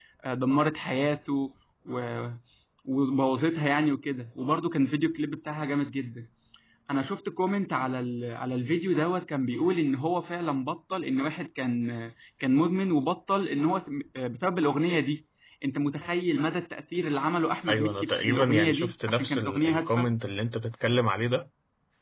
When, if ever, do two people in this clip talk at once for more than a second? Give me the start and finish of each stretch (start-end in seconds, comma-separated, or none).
17.7-20.1